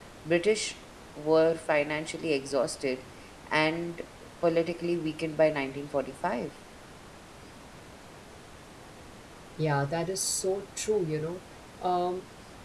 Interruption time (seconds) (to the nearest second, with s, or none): none